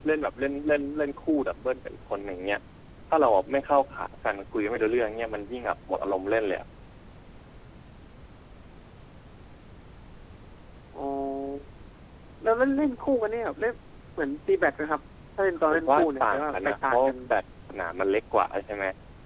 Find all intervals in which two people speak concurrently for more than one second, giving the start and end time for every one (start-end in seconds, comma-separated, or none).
15.7-17.1